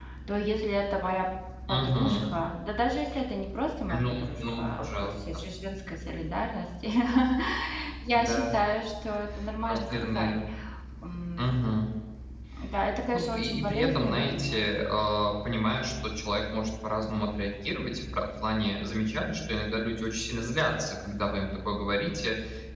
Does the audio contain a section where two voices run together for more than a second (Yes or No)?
Yes